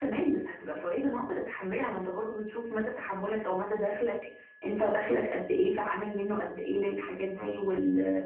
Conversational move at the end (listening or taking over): listening